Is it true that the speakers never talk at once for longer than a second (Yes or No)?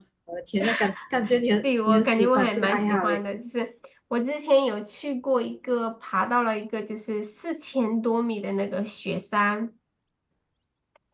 No